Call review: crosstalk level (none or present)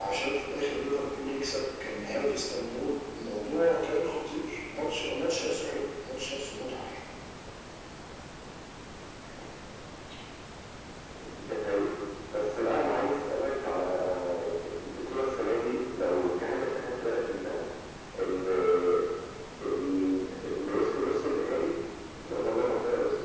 none